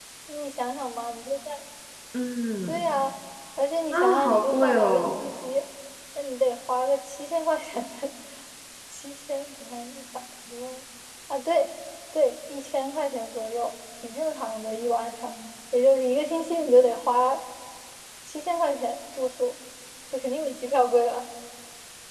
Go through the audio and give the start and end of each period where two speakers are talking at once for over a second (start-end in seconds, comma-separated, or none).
3.9-5.3